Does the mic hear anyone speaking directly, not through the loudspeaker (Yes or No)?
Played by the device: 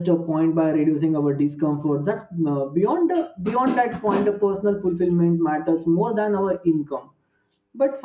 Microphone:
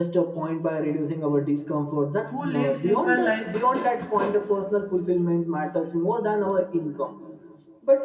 Yes